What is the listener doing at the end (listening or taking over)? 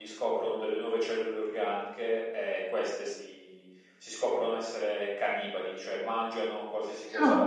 listening